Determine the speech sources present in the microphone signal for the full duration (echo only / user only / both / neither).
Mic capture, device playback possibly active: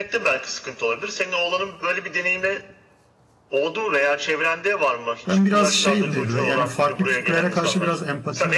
both